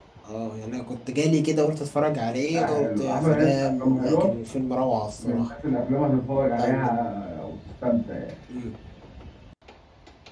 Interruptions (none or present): present